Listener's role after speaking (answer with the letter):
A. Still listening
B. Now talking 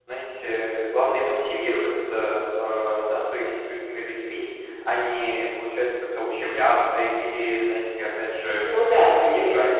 B